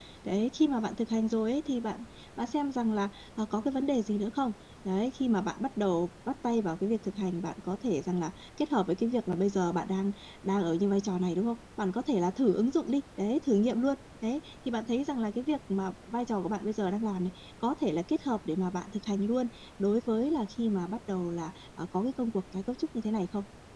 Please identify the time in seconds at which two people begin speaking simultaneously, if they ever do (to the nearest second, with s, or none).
none